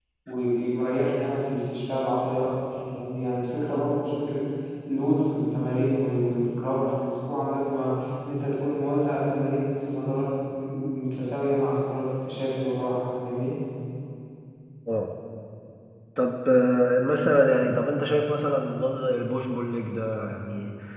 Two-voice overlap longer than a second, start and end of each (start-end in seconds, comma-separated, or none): none